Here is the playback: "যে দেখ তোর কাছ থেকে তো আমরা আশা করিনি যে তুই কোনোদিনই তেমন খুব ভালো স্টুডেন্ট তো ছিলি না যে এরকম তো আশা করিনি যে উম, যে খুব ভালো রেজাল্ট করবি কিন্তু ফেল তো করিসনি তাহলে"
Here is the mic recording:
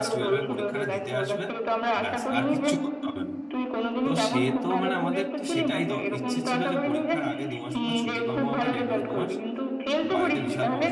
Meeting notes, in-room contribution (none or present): present